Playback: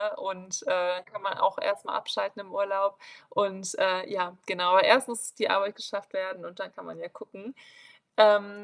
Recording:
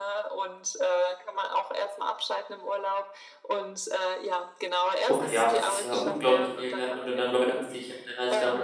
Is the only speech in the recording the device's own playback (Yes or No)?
No